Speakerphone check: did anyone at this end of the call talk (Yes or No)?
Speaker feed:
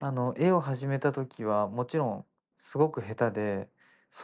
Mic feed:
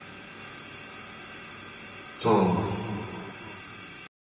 Yes